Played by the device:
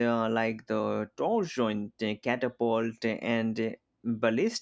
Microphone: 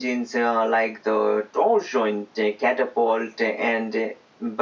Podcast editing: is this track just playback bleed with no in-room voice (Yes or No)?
Yes